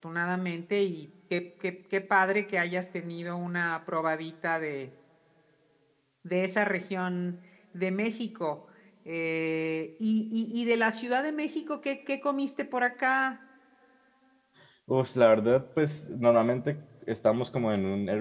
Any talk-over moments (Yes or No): No